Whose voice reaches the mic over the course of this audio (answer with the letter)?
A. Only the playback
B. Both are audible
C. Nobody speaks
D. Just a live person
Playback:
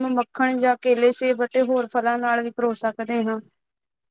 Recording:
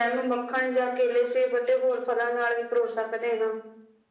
A